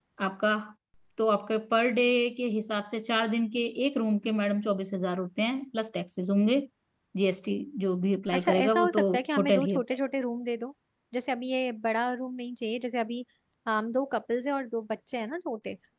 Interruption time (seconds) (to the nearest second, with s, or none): 8 s